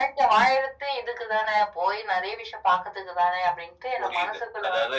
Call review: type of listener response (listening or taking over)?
taking over